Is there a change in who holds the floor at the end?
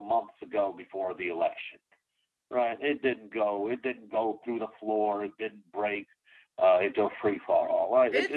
Yes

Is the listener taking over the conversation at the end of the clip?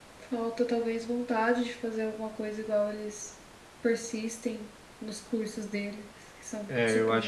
Yes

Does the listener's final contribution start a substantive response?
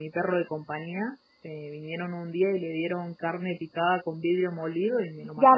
Yes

